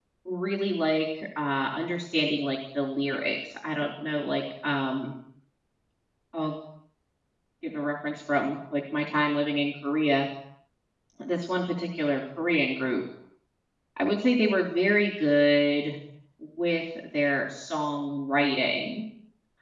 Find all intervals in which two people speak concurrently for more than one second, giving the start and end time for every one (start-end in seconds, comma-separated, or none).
none